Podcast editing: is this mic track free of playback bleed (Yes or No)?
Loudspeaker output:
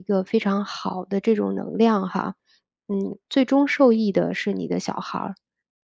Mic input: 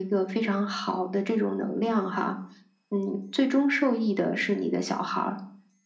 No